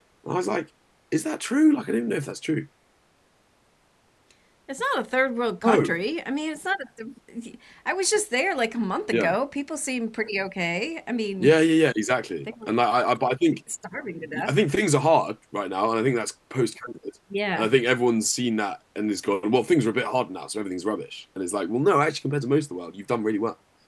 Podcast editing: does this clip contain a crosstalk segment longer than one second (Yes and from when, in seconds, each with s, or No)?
No